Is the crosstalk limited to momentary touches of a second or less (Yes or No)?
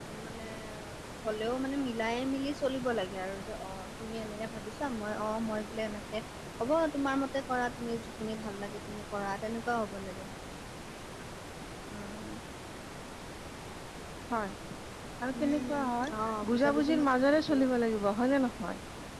No